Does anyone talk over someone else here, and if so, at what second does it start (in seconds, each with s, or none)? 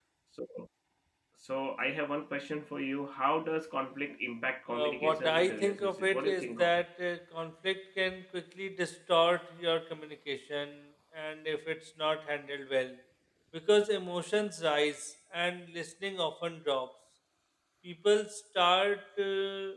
4.7 s